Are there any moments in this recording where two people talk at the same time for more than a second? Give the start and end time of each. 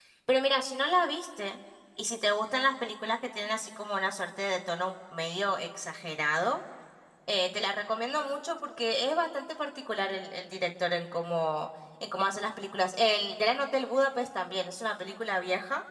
none

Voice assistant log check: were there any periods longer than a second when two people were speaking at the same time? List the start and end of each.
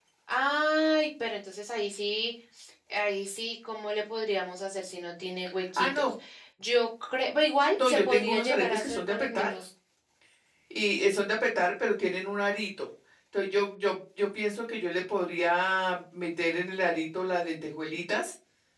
7.8-9.5

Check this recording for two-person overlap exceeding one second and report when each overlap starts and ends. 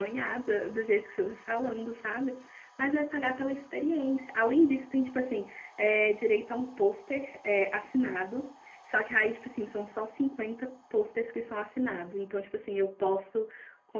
none

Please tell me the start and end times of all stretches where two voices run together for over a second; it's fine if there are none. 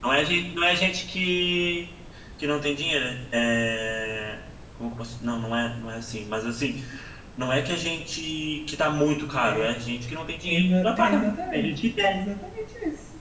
10.5-12.2

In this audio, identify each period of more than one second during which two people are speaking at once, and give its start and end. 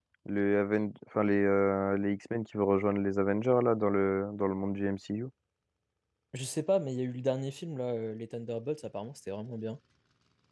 none

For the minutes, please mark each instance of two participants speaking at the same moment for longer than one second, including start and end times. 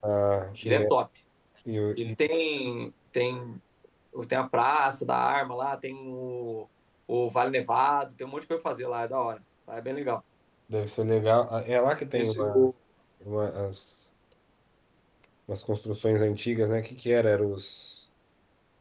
none

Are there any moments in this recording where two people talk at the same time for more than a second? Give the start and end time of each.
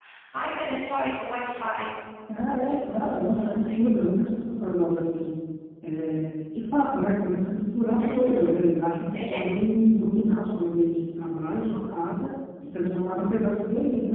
2.6-3.8

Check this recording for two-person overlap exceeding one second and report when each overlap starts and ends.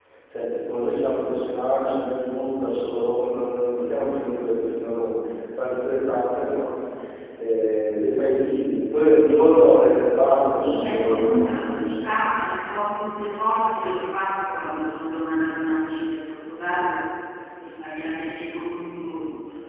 10.6-12.0

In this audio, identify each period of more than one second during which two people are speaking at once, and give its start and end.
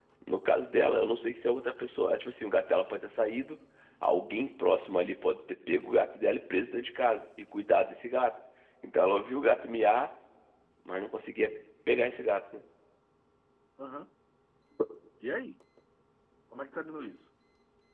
none

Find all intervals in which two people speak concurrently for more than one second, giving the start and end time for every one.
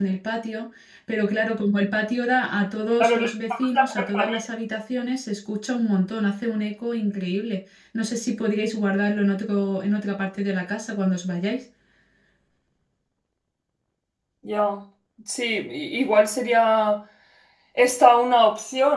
3.0-4.4

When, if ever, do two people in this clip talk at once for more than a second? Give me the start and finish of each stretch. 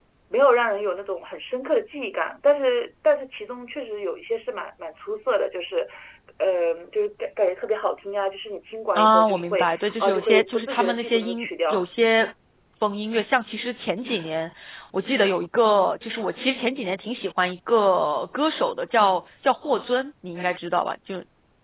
9.0-11.8

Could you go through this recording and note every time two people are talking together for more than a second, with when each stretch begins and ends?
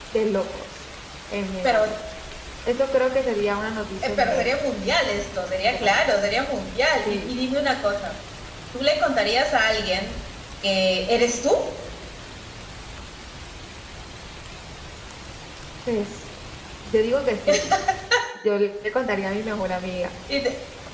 none

